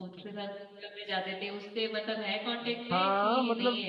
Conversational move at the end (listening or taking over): taking over